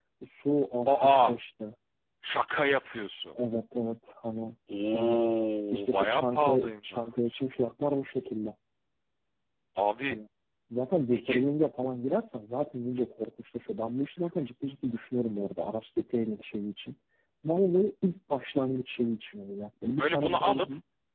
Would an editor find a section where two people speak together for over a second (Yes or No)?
Yes